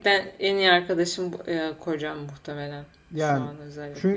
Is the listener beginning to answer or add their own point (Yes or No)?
Yes